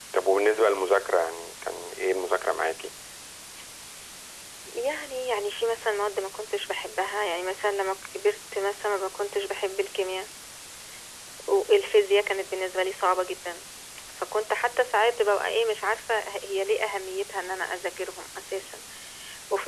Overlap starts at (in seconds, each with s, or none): none